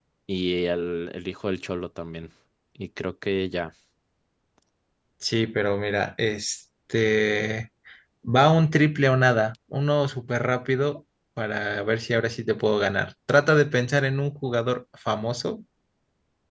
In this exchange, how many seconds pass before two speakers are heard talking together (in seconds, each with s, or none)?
none